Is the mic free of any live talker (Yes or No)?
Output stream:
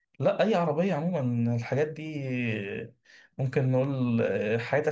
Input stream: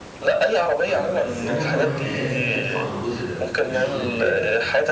No